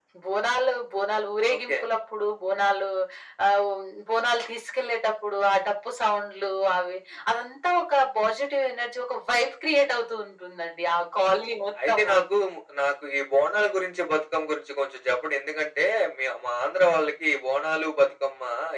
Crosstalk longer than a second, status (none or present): none